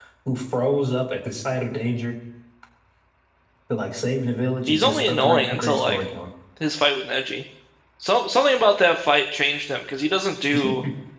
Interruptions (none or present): present